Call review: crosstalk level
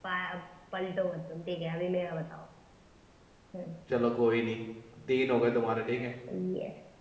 none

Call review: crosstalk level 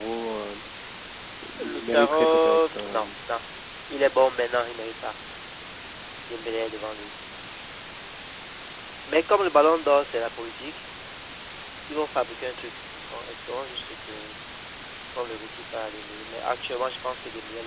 present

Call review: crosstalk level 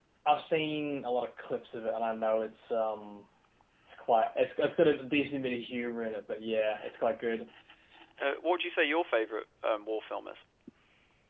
none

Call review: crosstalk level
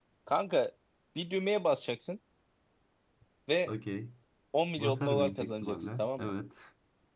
present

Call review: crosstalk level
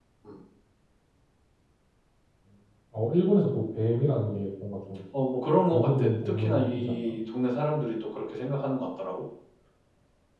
present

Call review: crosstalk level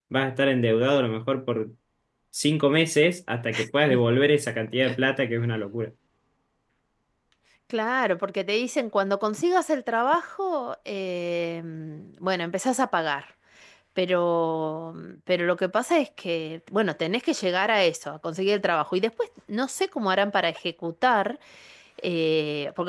none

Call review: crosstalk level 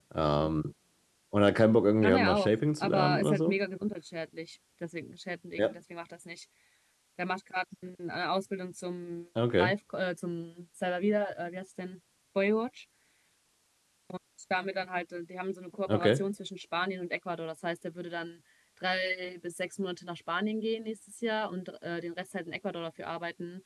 present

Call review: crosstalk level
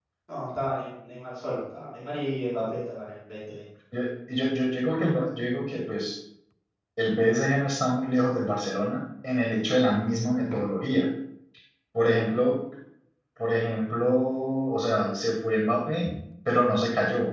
none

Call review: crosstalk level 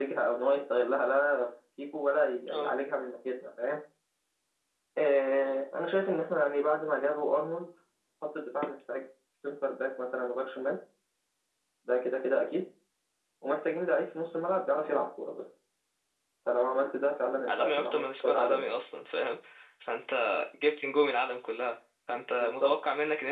present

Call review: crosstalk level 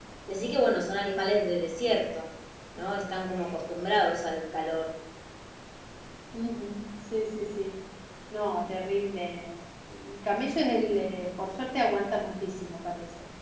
none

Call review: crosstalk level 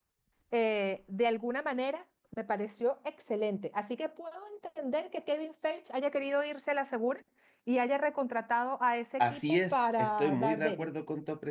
present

